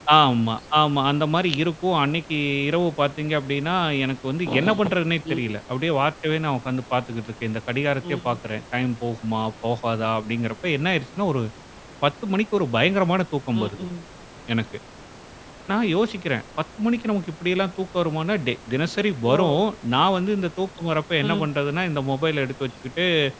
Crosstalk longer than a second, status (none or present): none